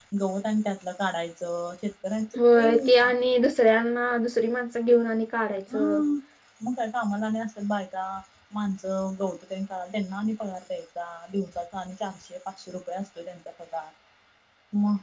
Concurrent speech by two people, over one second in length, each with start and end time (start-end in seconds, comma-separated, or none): none